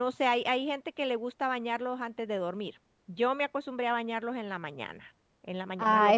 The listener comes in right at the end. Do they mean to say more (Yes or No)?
Yes